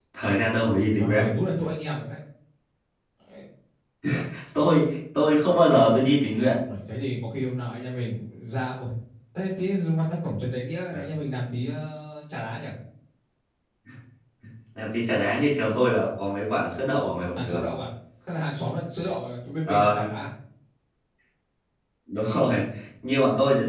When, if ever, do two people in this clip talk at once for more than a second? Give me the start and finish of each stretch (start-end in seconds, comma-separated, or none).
none